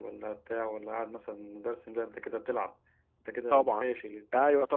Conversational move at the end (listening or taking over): taking over